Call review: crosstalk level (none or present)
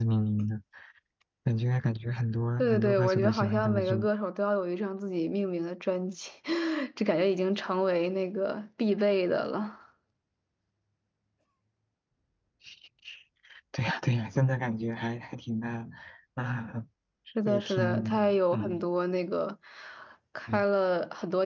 present